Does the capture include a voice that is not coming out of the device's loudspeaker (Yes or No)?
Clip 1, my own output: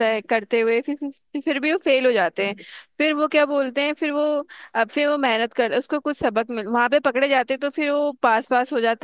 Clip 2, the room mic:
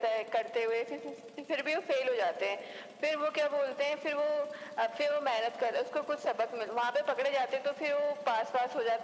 No